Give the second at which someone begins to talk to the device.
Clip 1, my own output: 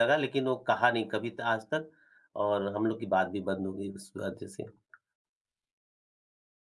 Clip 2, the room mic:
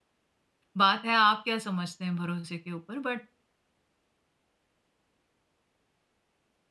0.8 s

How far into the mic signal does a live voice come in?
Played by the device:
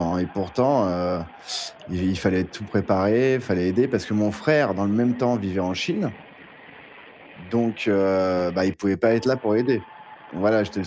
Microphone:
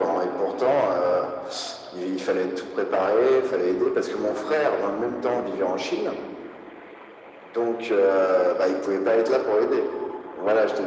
none

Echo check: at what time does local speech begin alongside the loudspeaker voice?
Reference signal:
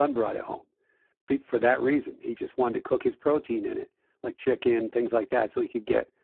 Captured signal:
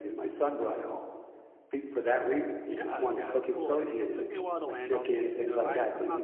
2.7 s

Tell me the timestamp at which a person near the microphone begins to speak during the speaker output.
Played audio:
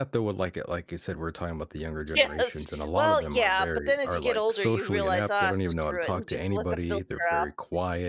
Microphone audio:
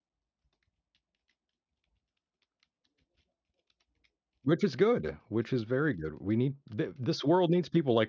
4.4 s

